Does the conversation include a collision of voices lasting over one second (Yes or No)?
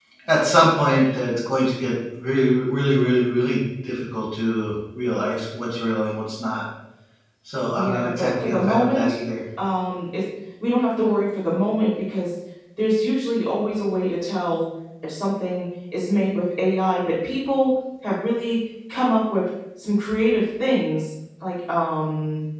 Yes